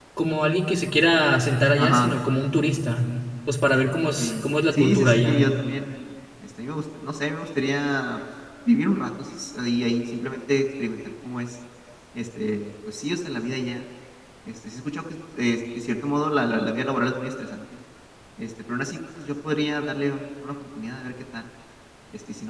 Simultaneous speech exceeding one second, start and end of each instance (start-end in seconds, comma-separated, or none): 4.2-5.4